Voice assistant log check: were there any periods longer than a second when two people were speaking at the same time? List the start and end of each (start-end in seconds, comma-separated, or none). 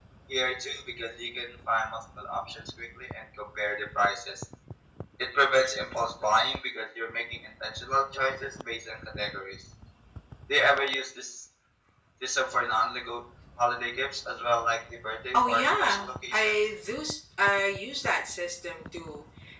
15.3-16.6